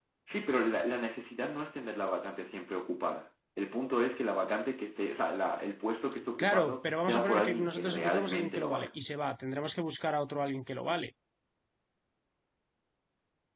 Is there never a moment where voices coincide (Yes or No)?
No